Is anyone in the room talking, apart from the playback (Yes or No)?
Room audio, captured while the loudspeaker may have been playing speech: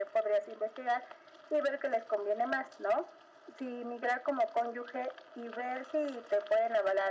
No